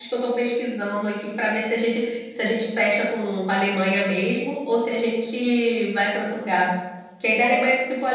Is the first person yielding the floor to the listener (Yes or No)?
No